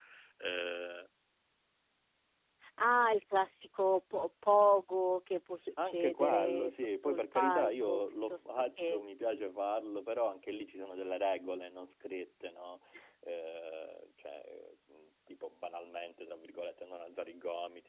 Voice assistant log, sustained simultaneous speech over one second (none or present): present